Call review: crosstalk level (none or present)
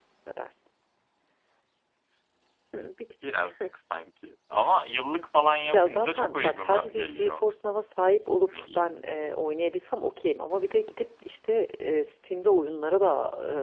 present